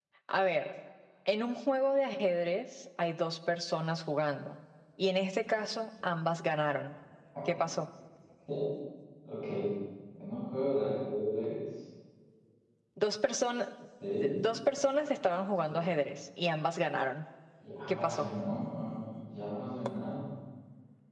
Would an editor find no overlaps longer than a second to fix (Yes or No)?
Yes